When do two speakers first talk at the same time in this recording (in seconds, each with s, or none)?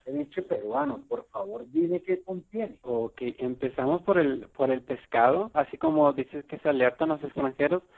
none